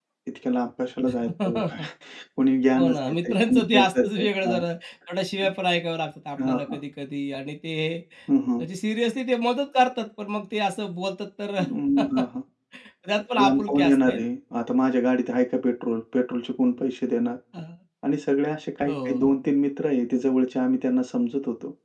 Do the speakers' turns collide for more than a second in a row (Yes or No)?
Yes